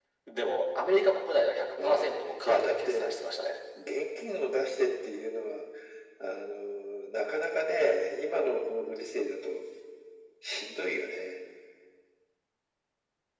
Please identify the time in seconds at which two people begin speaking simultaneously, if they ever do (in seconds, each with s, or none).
1.8 s